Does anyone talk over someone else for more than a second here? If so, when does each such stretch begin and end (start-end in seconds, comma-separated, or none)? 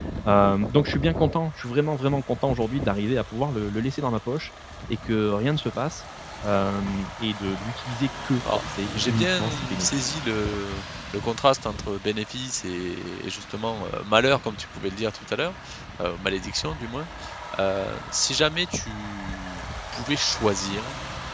8.5-10.1